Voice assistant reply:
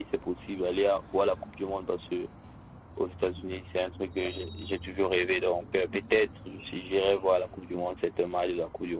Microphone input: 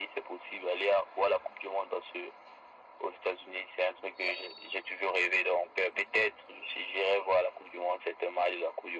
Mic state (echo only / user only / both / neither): echo only